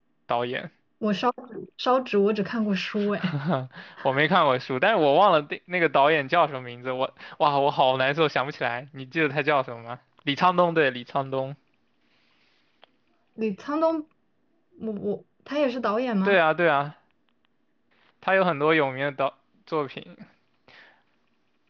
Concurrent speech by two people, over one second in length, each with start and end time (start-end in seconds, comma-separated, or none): none